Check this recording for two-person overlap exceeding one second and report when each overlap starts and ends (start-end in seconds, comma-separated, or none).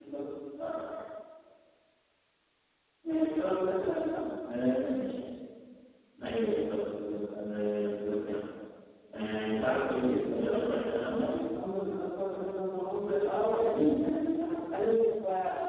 none